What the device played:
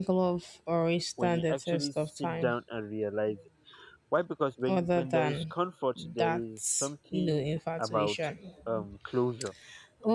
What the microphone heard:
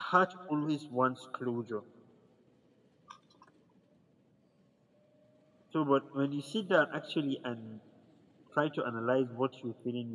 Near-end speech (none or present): present